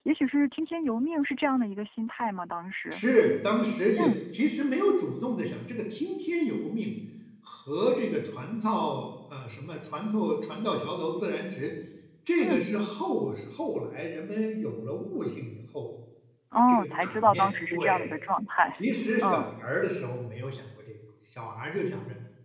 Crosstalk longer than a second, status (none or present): present